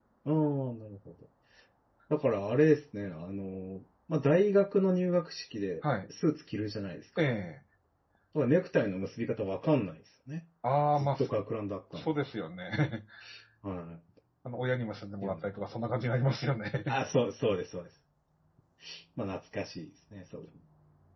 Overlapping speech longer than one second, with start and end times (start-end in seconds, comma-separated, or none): none